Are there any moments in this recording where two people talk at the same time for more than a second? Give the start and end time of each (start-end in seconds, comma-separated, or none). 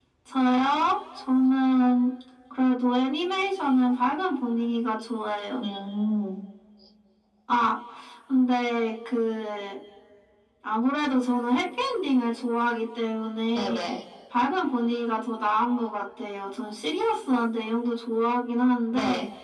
none